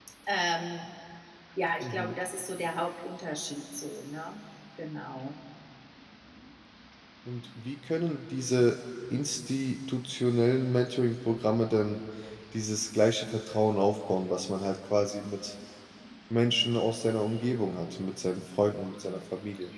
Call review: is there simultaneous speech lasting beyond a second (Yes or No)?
No